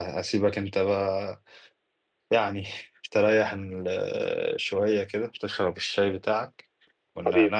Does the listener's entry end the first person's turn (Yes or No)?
No